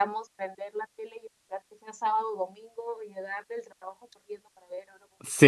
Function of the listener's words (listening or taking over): taking over